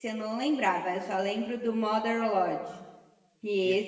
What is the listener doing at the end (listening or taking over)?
listening